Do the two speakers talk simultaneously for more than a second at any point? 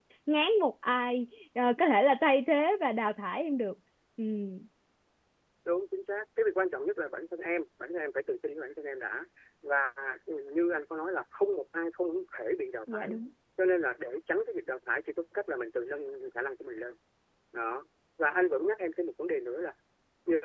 No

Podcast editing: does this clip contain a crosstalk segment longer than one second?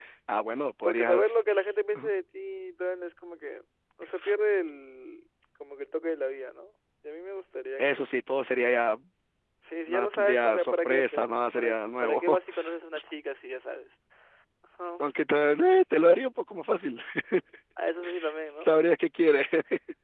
Yes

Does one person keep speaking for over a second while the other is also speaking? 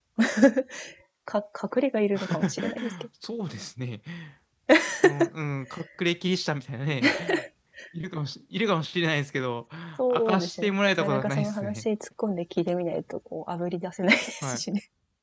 Yes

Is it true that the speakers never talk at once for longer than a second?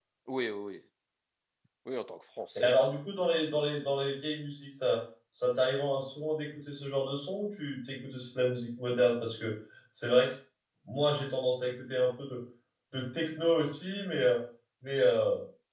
Yes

